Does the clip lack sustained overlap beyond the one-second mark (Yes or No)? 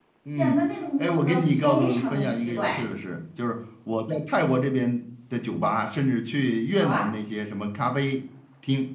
No